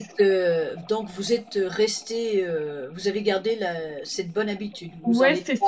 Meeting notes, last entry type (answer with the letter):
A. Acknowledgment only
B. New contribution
B